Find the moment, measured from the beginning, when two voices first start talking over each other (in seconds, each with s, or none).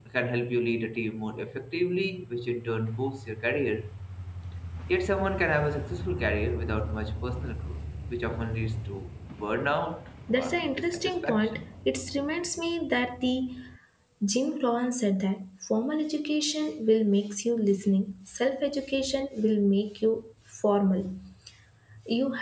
10.3 s